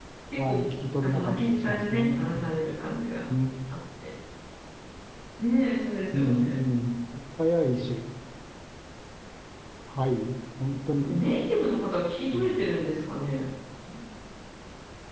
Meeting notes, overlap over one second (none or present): present